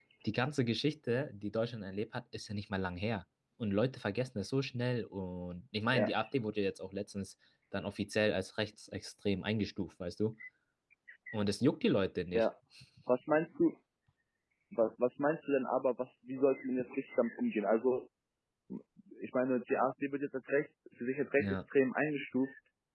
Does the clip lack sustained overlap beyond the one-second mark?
Yes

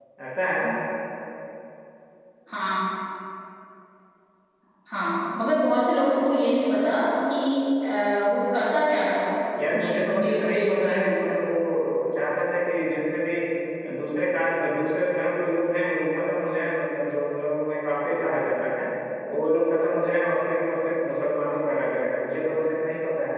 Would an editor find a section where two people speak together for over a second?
Yes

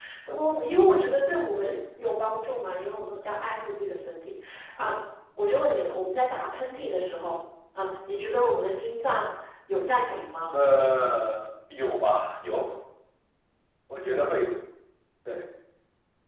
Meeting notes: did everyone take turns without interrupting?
Yes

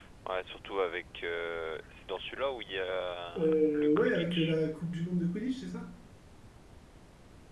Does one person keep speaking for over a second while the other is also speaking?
Yes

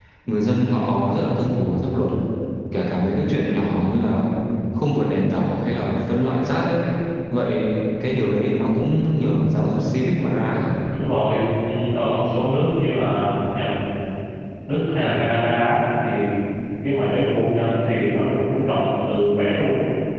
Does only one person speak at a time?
Yes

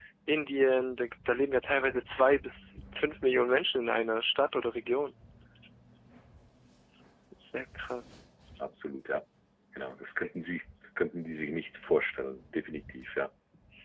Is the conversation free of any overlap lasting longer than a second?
Yes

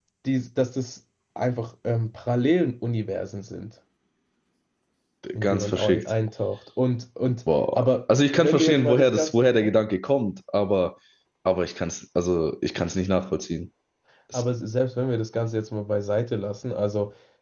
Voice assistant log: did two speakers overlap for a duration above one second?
Yes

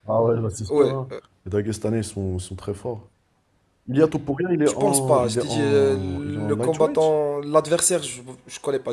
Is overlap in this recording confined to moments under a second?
No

